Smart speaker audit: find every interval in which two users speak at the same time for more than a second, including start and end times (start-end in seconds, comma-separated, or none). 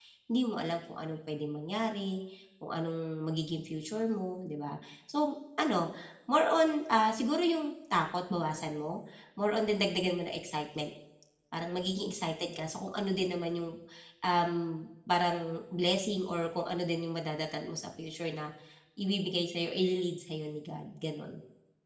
none